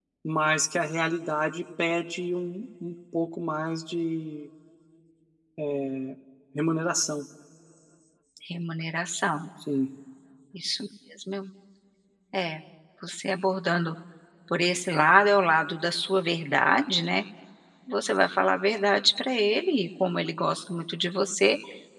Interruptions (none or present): none